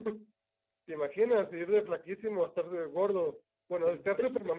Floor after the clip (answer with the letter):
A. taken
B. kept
B